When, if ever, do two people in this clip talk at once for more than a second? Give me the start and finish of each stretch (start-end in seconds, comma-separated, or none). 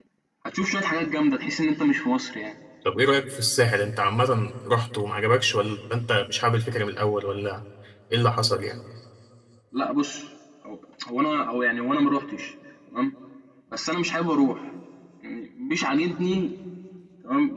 none